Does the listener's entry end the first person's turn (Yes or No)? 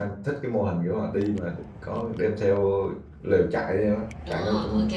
Yes